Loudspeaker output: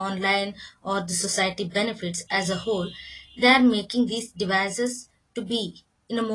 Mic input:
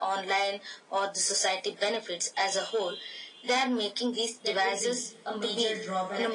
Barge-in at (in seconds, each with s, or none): 4.4 s